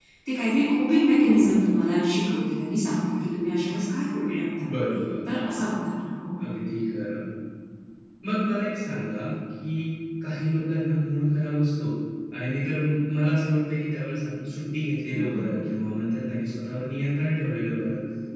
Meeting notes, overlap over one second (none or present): none